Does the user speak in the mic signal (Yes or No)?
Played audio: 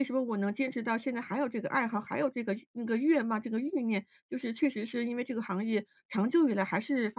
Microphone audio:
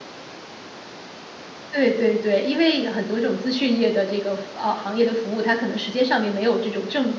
Yes